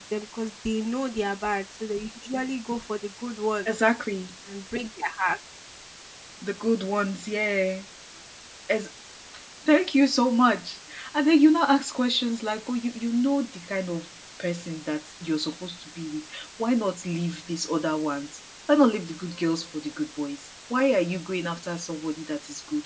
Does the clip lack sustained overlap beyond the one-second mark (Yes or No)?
Yes